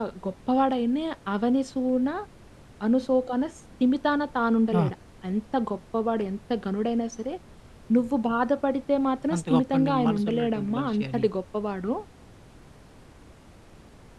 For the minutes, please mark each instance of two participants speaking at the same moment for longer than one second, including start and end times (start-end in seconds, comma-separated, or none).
9.3-11.2